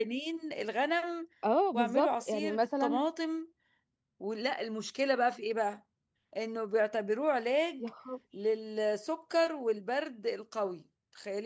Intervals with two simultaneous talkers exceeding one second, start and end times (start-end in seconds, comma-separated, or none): 1.7-3.0